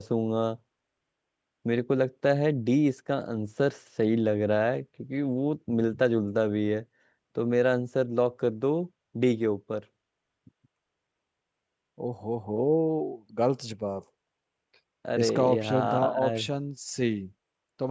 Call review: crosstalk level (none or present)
present